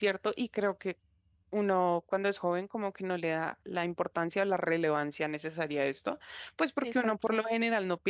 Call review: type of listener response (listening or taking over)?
listening